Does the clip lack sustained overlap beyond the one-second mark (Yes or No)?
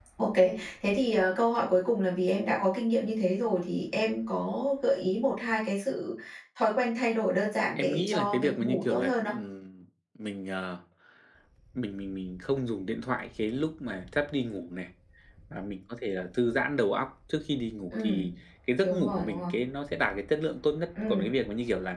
No